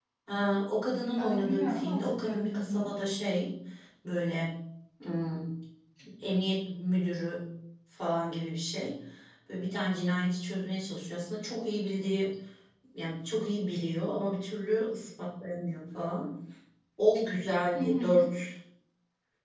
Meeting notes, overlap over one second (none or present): present